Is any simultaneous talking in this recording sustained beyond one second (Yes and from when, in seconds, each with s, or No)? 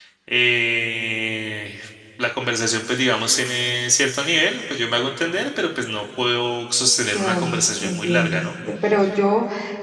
Yes, from 7.1 s